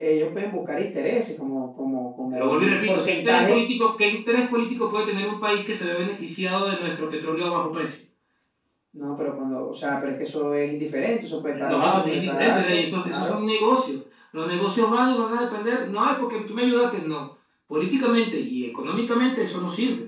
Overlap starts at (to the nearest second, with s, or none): 2 s